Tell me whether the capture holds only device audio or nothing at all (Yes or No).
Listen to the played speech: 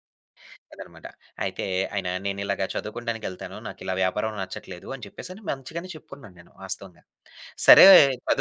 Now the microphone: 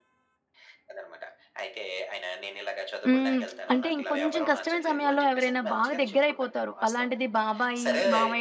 No